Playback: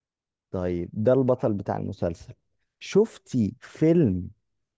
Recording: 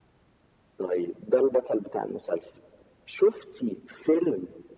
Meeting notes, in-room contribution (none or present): none